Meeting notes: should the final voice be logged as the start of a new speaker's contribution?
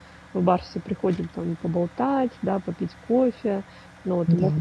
No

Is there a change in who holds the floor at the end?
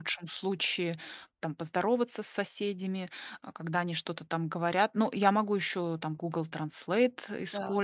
No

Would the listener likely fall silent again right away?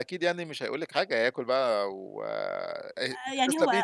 No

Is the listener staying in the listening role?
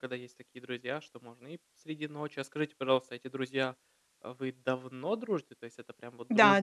No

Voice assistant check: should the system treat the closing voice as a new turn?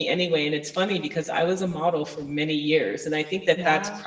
No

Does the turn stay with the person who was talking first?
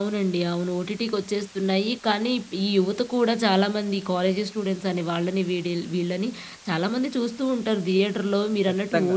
No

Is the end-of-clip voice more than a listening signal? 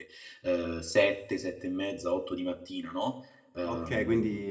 Yes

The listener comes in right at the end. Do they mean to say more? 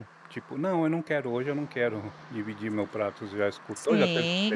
Yes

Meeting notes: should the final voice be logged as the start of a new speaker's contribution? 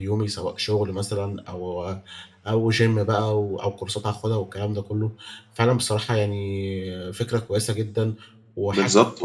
Yes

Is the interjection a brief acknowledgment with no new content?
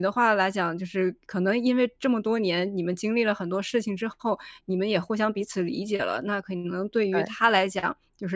Yes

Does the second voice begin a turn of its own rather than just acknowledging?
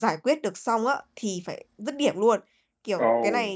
No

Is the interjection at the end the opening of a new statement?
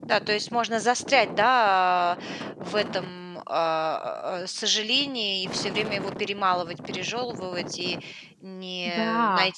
No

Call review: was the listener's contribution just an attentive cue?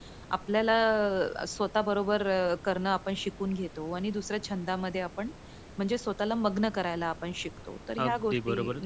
No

